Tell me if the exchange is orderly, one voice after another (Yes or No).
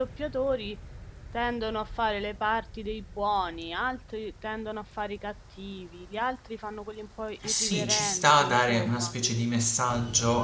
No